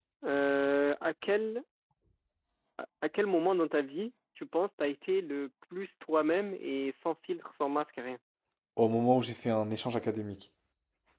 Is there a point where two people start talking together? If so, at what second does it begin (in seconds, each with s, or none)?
none